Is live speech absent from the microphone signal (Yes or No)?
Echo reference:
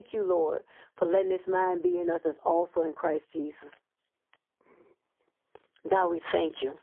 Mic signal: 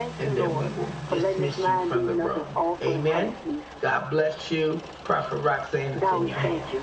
No